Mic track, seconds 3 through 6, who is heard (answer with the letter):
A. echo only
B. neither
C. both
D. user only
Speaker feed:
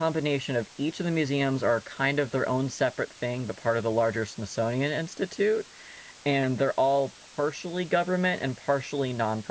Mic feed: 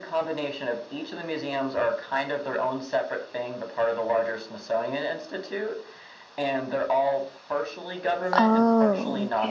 A